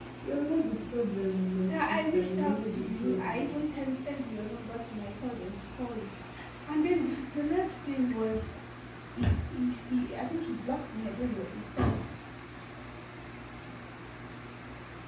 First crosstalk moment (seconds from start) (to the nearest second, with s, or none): 2 s